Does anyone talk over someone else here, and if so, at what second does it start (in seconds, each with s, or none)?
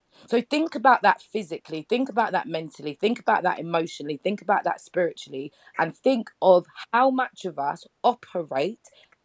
none